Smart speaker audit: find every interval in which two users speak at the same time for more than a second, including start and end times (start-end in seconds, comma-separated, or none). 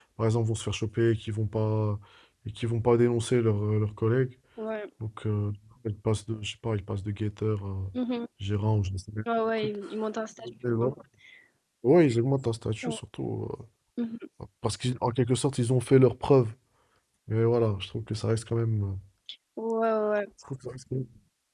none